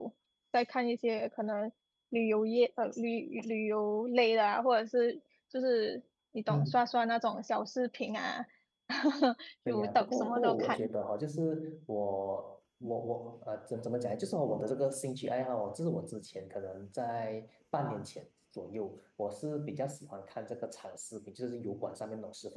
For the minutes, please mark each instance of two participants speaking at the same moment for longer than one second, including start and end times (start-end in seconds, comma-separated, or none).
9.7-10.9